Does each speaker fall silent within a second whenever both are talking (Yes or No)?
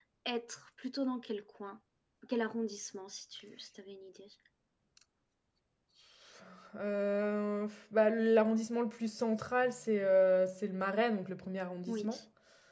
Yes